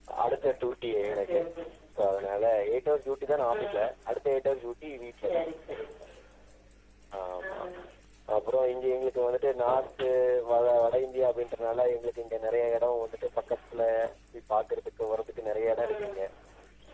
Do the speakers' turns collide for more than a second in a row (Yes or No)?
No